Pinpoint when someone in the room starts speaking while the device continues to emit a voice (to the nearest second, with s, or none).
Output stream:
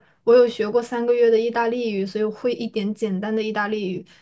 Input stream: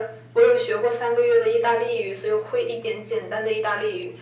none